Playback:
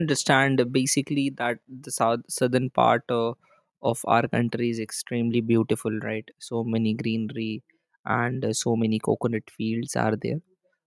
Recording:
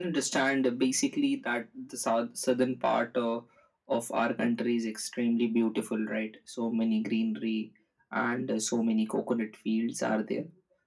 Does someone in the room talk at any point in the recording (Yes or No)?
No